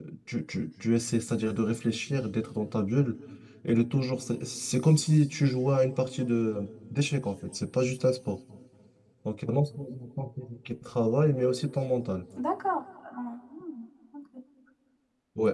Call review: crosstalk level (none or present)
none